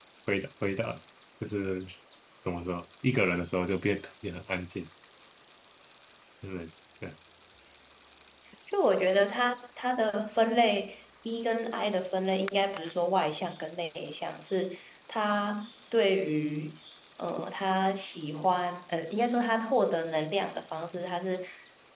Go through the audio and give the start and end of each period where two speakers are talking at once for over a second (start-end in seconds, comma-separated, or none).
none